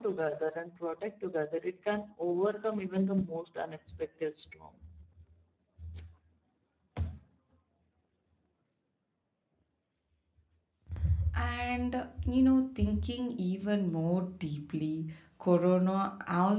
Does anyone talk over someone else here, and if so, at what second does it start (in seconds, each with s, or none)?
none